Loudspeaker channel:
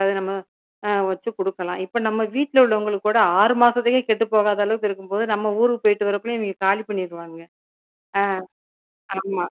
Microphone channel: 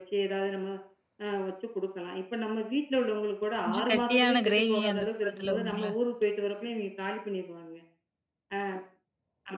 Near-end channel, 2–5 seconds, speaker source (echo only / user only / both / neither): both